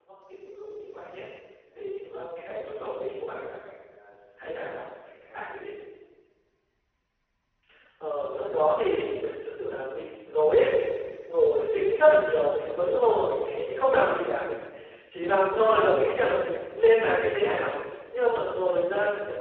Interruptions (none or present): none